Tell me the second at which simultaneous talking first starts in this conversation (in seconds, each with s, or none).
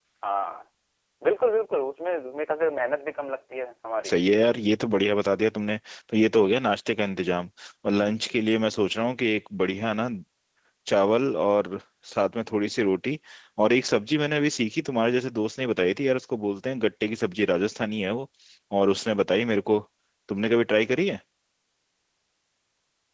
none